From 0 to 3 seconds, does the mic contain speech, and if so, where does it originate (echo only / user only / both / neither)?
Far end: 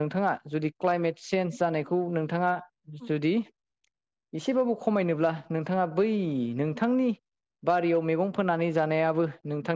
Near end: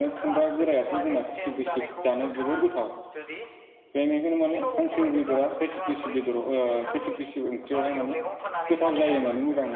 both